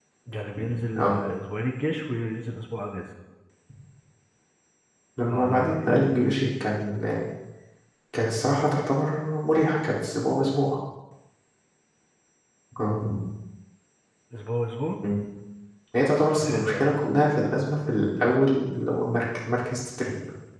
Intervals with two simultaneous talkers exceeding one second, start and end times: 5.3-6.5

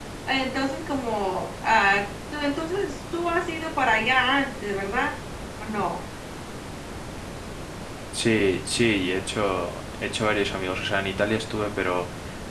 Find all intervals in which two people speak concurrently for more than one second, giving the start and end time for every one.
none

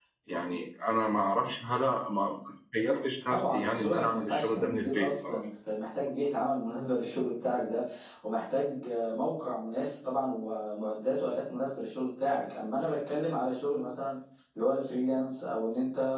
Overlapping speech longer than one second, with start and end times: 3.3-5.4

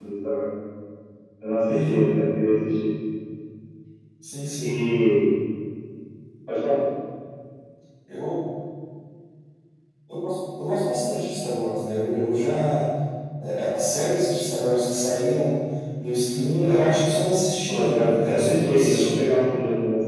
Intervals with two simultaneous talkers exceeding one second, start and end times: 17.7-19.2

